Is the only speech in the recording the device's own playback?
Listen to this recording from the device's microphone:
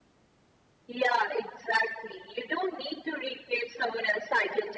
Yes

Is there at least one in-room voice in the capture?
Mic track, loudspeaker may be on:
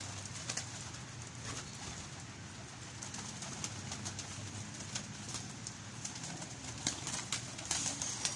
No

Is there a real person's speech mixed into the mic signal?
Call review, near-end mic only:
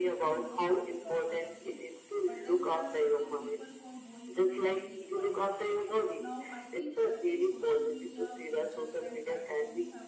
Yes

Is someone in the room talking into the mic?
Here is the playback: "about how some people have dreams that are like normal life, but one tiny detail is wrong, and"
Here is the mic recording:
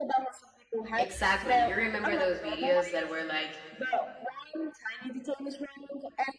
Yes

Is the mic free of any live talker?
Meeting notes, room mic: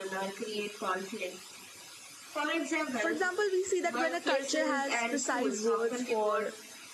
No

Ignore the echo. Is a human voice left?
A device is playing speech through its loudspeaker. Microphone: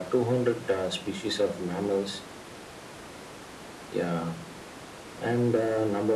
No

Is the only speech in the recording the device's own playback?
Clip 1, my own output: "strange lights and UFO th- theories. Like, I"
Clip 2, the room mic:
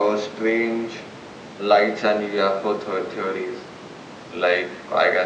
Yes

